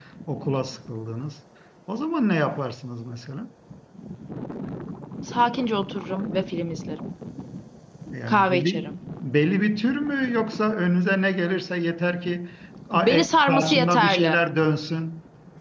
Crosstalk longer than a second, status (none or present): present